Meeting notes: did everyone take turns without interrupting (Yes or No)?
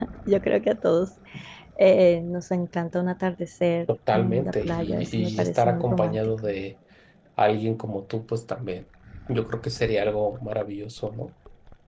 No